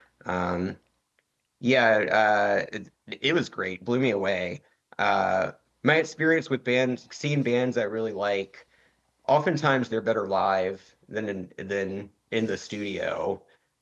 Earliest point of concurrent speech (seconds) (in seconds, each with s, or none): none